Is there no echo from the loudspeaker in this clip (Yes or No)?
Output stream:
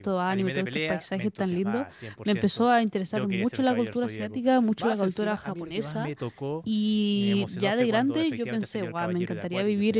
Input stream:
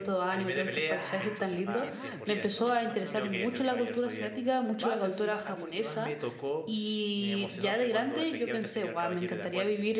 No